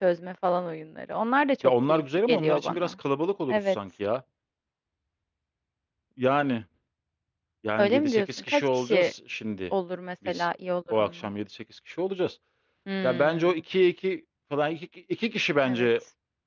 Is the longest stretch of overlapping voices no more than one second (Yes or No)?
No